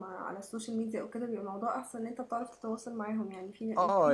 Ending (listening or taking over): taking over